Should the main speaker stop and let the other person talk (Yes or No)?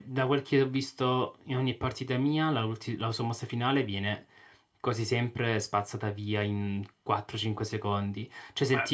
No